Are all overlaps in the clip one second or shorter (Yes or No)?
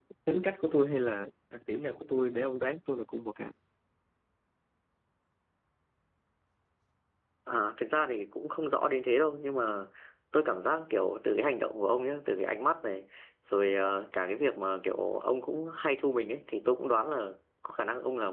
Yes